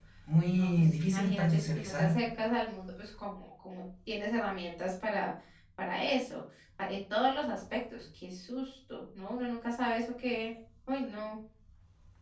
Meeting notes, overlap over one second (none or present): present